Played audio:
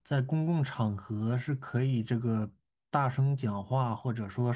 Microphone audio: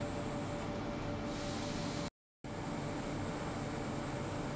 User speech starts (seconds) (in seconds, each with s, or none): none